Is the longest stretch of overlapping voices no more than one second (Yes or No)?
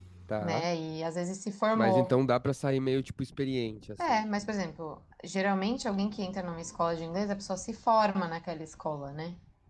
Yes